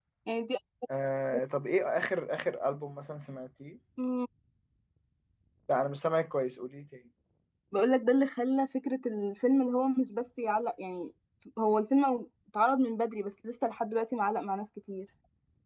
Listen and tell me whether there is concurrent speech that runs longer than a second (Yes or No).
No